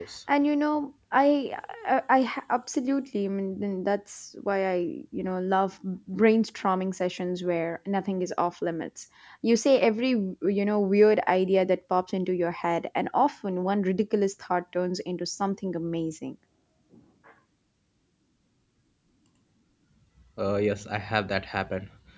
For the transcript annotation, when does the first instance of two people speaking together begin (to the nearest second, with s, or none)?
none